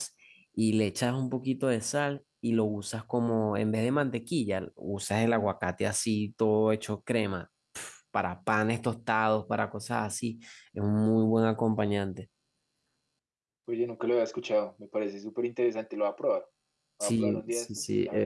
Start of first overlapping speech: 17 s

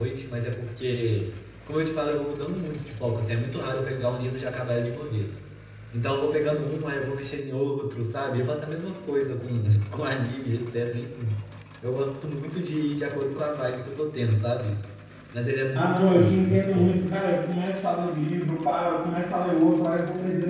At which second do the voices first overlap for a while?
16 s

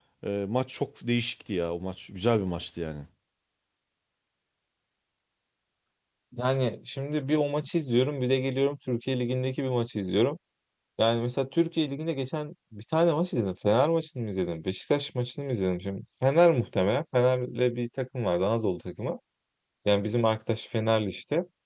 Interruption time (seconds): none

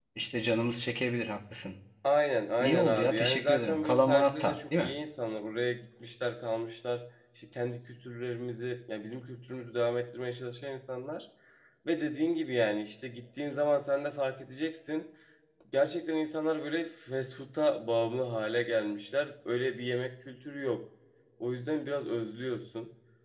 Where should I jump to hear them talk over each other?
3 s

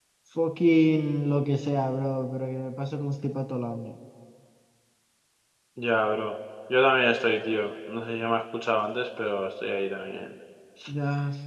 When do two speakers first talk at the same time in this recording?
none

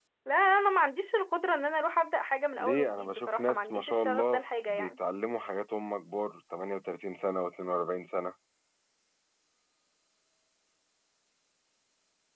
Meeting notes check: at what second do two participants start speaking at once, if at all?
3 s

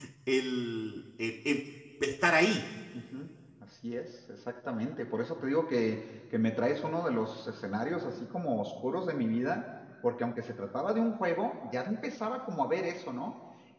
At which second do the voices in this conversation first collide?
none

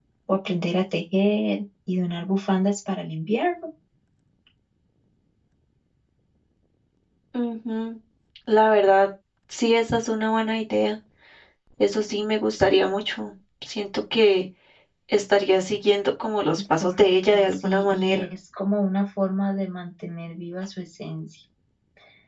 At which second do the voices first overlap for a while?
17 s

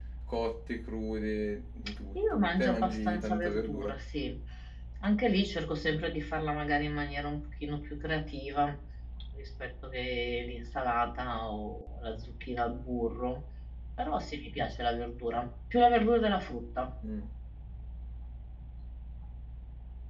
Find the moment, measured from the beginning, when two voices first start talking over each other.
2 s

